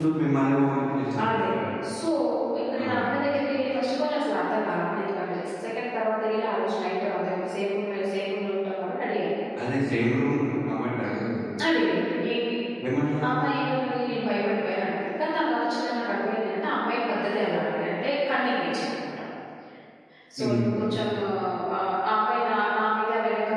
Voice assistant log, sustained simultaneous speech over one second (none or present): none